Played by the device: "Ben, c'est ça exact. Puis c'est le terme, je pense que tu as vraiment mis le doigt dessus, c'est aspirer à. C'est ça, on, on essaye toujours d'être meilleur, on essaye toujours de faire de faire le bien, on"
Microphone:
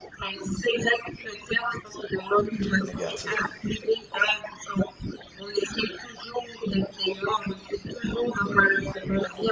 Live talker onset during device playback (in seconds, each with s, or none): 2.5 s